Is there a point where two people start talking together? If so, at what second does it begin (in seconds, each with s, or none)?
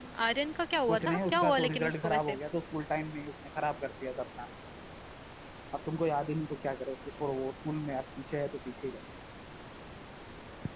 0.9 s